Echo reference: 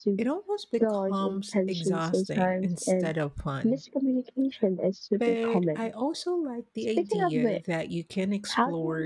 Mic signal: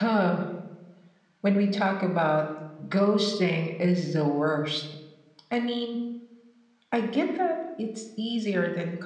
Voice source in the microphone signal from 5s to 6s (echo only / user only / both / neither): user only